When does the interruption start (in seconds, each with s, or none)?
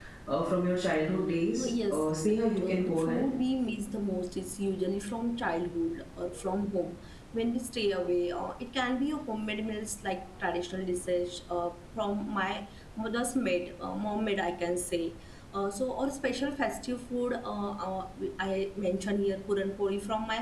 1.6 s